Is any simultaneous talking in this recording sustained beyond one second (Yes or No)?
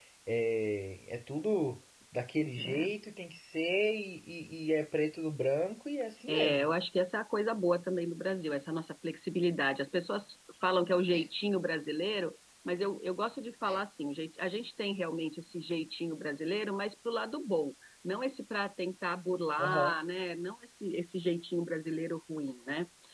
No